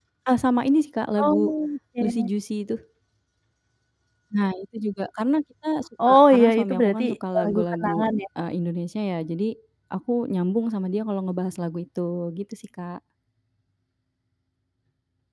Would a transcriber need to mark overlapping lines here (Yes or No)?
Yes